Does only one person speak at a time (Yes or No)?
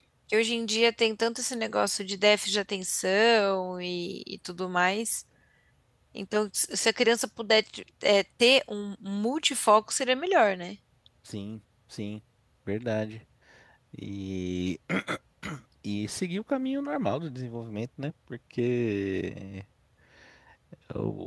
Yes